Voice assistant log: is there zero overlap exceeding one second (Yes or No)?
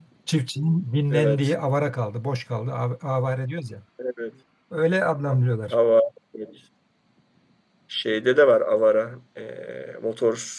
Yes